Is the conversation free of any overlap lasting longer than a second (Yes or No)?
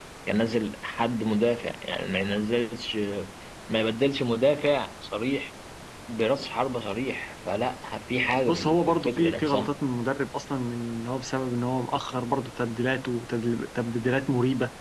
No